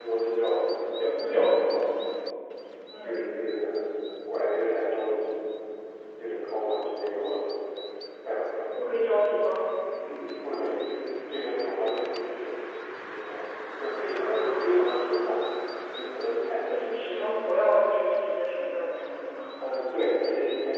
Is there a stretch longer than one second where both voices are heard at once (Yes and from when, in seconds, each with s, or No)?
No